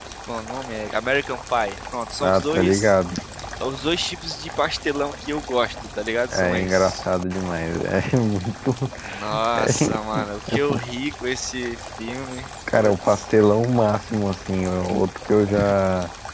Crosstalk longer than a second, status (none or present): present